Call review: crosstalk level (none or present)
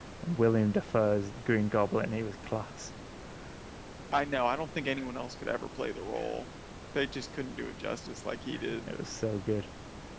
none